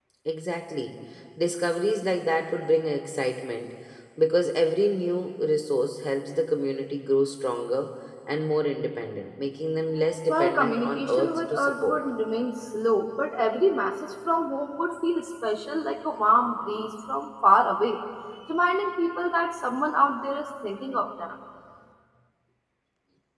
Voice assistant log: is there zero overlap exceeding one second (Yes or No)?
No